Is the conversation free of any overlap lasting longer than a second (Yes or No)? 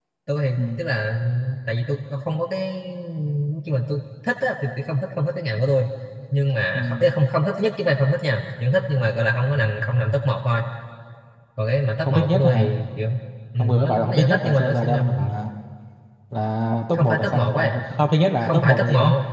No